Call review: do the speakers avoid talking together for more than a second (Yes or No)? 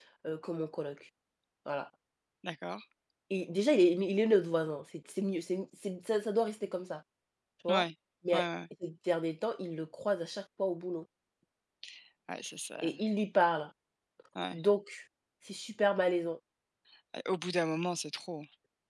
Yes